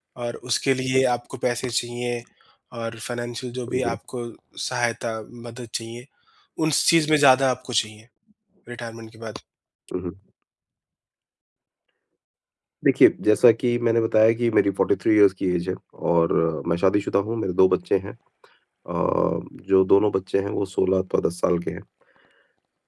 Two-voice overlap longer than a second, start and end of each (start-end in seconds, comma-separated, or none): none